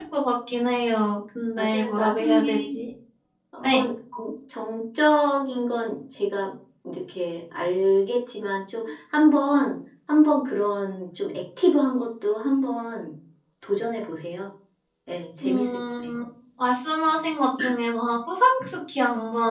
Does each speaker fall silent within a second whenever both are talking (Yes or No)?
No